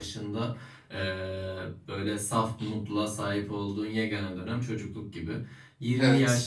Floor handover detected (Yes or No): No